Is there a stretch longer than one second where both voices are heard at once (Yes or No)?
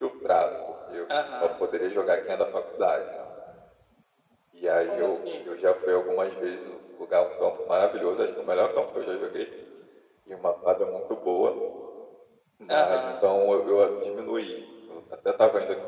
No